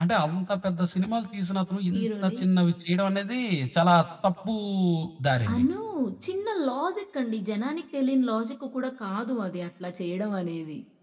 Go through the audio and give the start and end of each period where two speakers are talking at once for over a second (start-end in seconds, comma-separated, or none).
none